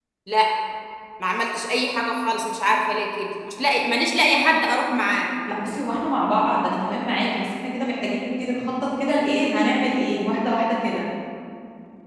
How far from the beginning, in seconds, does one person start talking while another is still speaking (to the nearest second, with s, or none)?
none